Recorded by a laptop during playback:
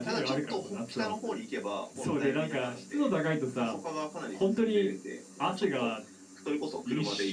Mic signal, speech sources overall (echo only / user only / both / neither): echo only